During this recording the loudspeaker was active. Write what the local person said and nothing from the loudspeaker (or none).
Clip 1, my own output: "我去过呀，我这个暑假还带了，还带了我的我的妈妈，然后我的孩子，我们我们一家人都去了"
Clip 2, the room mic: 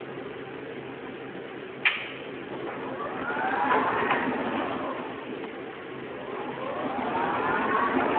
none